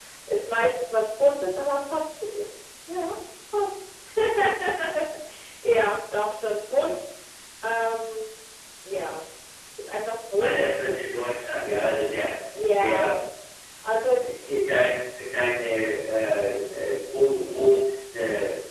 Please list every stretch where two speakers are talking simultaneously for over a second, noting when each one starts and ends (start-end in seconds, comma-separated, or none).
none